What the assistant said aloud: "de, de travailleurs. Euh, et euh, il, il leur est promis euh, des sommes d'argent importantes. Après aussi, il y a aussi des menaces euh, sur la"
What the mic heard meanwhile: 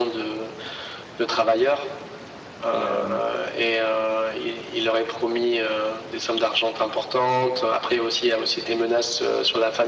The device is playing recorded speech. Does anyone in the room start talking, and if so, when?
2.7 s

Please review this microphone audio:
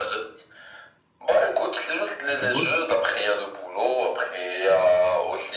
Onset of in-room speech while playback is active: 2.3 s

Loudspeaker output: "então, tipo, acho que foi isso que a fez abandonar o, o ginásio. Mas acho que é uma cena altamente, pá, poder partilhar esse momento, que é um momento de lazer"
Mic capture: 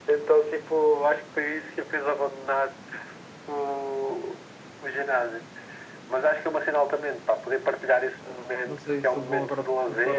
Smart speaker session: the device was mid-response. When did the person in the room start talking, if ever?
8.2 s

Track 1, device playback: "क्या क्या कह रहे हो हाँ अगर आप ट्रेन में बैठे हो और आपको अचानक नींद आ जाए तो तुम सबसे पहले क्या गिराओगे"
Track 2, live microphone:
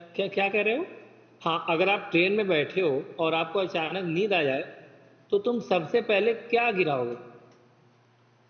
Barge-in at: none

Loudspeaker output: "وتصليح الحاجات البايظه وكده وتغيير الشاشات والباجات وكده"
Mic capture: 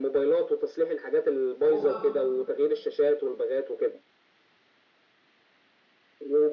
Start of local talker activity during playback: 1.6 s

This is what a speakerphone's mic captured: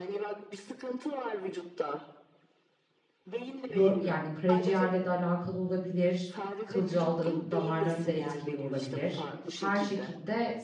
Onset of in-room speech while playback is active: 3.7 s

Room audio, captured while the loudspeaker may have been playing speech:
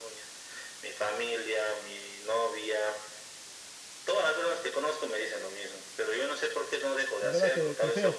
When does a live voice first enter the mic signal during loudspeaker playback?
7.2 s

